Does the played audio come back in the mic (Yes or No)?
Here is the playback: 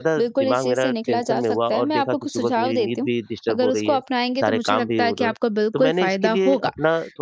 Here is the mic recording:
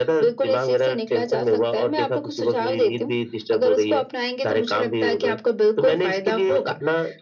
Yes